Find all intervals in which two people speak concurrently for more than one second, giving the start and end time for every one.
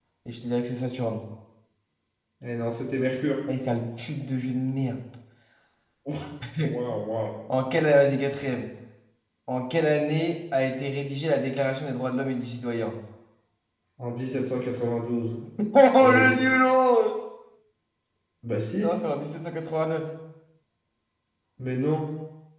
none

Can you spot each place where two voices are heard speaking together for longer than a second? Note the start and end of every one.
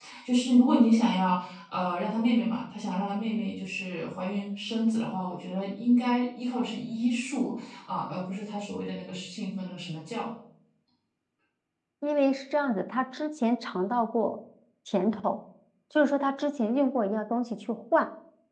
none

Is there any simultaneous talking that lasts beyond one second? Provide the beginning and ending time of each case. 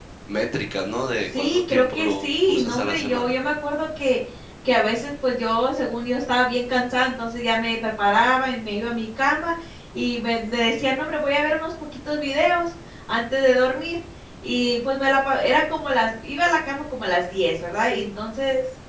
1.4-3.3

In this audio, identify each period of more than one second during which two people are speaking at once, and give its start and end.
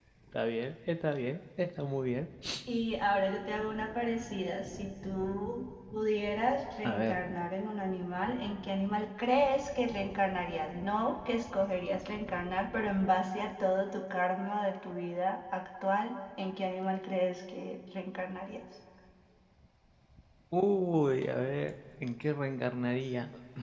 none

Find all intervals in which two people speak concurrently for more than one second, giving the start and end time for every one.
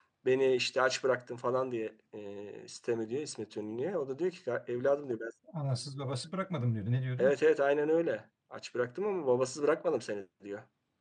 none

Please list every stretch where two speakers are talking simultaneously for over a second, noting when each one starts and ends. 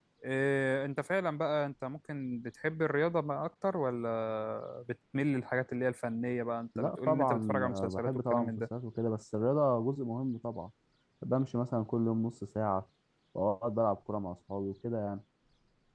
6.8-8.6

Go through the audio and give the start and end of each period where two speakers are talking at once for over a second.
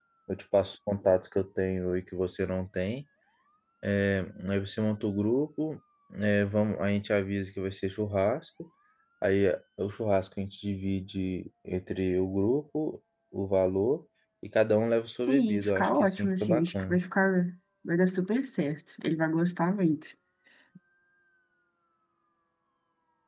15.3-17.0

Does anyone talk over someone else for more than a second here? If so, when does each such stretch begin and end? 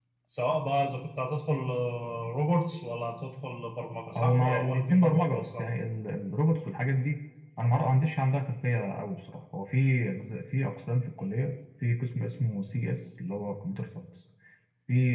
4.2-5.7

